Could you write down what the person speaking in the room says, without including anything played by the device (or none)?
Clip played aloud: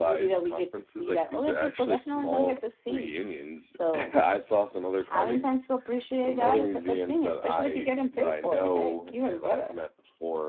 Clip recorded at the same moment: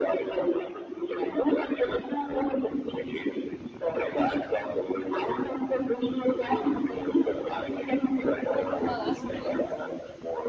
Oh, that's pretty cool.